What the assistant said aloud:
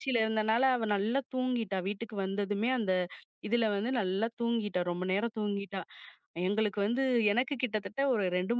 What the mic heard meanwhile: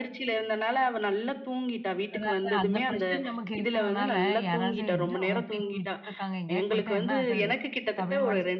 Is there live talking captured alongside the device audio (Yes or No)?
Yes